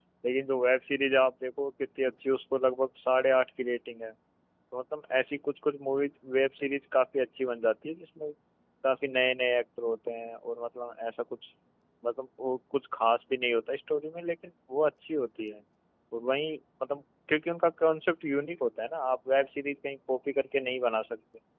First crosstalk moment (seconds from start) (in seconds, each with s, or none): none